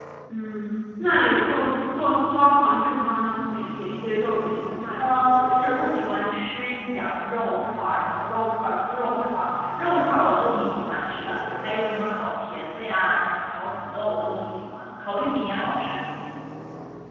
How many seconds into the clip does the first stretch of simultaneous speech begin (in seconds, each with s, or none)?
none